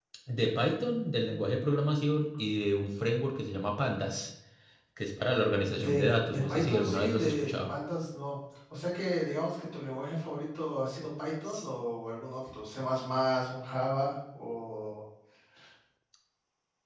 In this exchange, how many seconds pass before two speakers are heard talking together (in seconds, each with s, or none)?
5.8 s